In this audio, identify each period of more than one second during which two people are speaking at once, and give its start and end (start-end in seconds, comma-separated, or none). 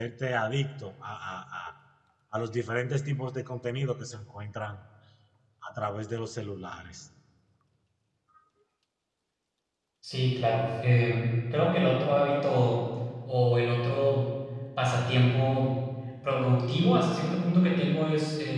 none